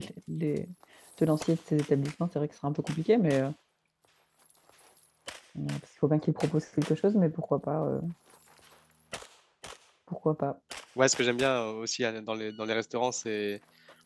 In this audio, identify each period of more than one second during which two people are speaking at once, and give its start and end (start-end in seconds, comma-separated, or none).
none